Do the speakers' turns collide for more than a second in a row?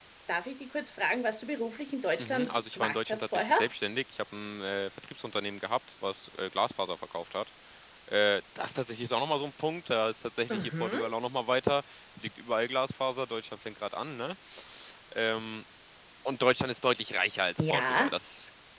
Yes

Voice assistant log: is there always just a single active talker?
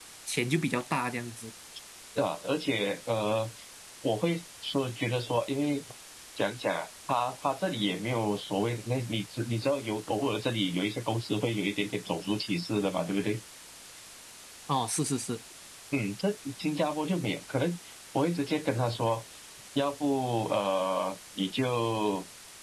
Yes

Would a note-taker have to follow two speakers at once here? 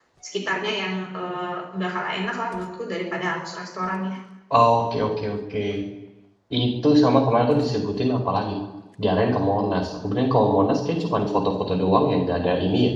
No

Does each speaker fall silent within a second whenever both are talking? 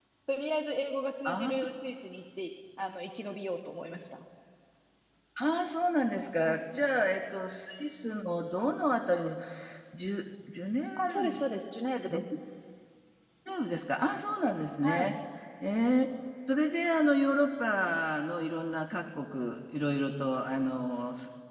Yes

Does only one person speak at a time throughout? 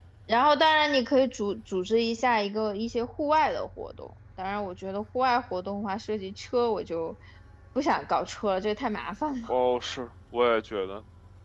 Yes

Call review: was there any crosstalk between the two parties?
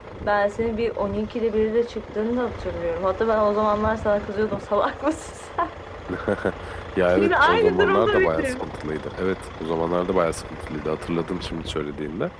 Yes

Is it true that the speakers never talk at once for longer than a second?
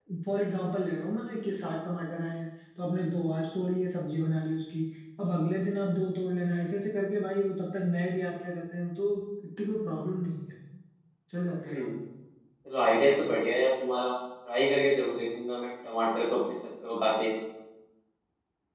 Yes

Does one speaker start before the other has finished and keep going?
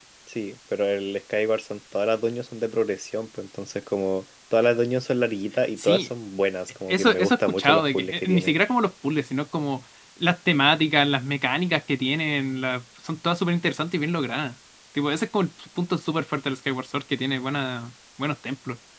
Yes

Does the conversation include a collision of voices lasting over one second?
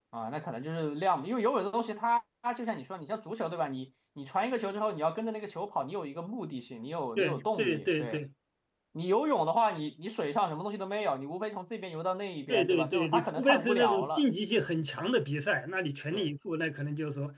Yes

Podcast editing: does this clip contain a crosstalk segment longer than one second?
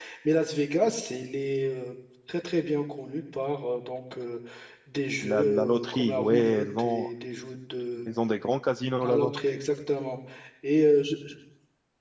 Yes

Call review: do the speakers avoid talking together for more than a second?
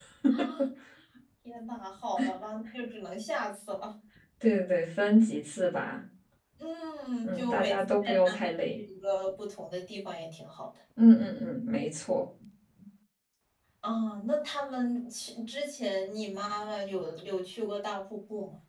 No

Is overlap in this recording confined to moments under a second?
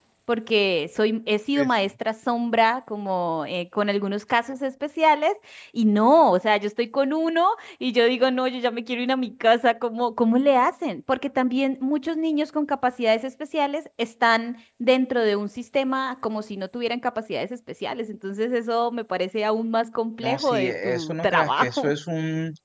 No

